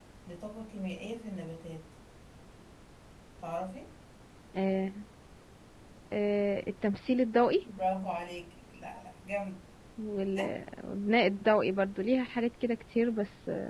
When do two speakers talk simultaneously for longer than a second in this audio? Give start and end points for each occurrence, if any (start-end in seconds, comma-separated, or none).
none